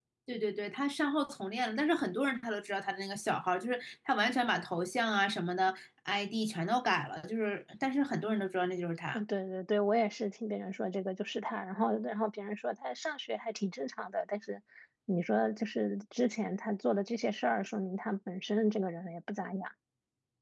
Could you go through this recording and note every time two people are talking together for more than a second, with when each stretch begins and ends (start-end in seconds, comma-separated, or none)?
none